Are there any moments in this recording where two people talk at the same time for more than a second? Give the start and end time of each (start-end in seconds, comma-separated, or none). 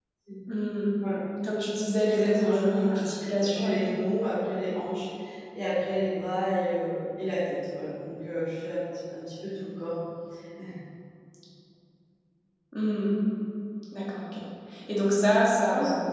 2.0-3.8